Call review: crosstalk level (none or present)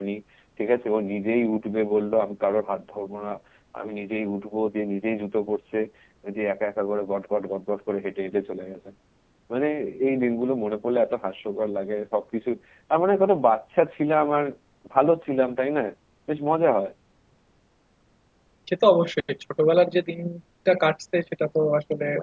none